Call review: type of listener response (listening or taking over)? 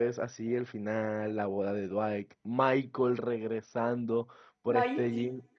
listening